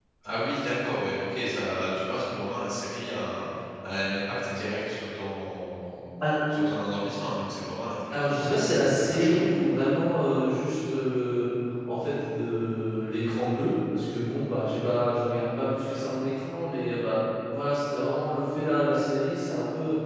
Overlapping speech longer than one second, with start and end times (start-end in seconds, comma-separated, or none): 8.1-9.5